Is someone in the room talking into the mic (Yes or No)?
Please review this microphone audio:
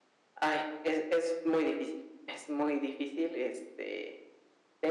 No